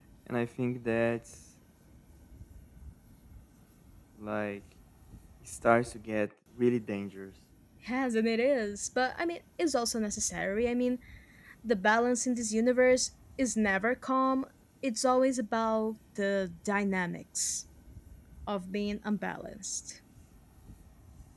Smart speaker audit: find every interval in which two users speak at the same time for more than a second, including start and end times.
none

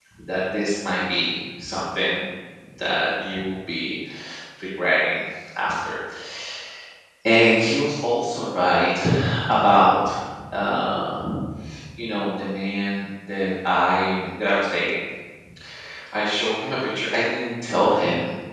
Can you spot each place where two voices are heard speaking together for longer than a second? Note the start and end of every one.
none

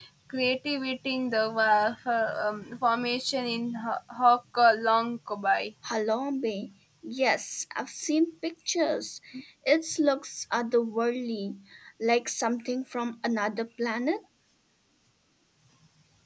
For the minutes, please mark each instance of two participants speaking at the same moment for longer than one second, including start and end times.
none

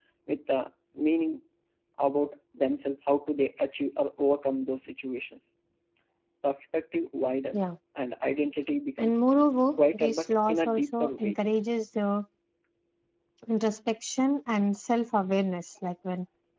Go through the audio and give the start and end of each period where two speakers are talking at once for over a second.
9.8-11.4

